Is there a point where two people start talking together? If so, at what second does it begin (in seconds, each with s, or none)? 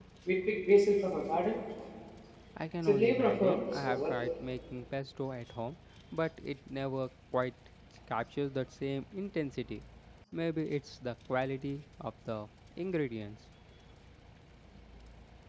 2.8 s